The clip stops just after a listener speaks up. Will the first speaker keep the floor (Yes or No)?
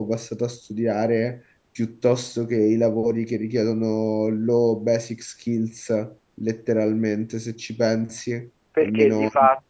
No